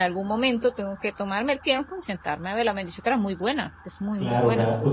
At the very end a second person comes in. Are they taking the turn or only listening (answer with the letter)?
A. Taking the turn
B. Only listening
A